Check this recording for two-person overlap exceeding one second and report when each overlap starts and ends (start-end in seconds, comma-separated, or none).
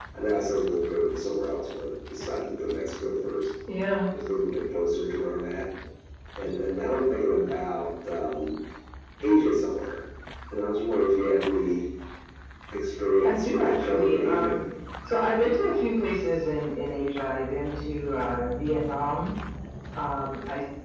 13.2-14.6